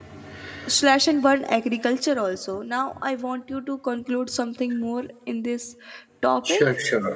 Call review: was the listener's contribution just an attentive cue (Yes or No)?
No